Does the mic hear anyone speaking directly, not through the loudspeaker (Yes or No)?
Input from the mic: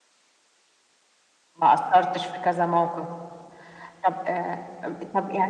No